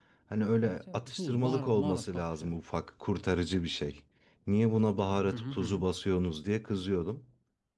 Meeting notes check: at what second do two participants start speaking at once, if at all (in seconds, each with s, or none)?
0.6 s